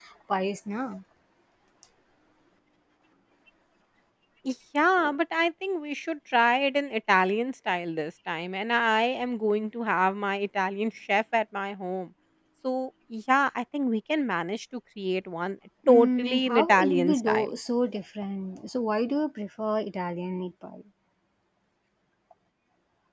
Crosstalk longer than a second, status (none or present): present